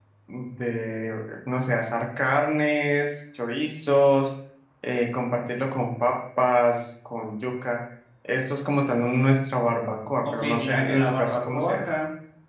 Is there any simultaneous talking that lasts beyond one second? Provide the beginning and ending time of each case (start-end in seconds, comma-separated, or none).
10.2-11.8